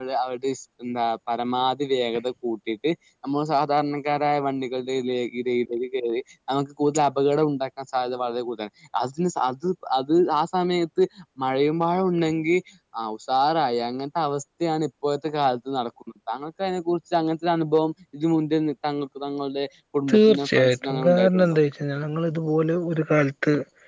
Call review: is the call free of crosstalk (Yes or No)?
No